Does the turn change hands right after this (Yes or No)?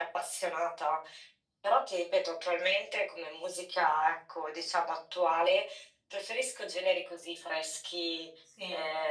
No